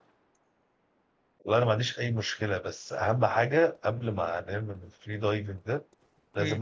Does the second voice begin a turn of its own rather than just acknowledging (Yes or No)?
No